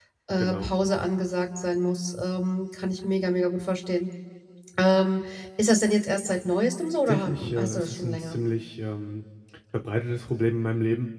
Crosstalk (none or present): present